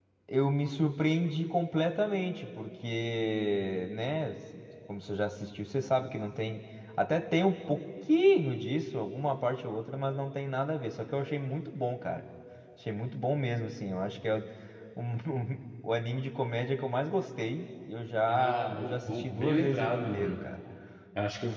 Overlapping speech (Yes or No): Yes